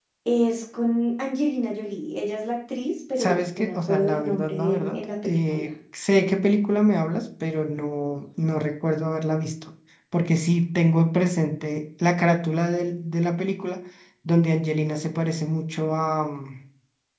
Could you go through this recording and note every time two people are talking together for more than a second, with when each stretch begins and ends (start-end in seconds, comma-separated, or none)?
3.2-5.7